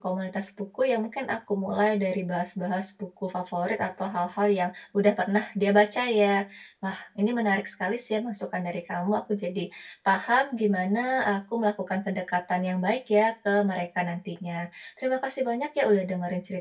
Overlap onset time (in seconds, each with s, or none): none